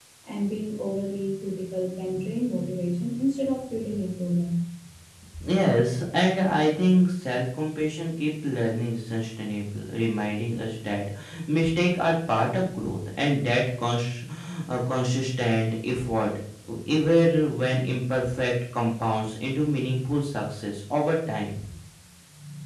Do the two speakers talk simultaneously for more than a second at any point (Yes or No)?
No